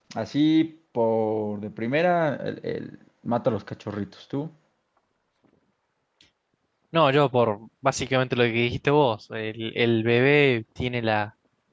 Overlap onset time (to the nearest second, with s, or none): none